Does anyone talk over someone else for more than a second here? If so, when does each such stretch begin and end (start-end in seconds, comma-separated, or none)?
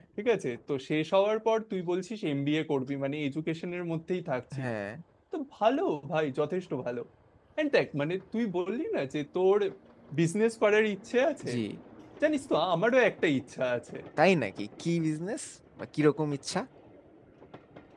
none